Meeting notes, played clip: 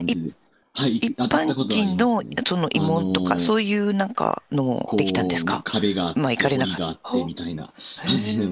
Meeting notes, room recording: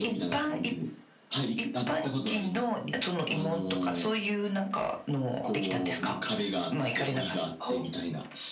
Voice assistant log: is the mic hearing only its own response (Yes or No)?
Yes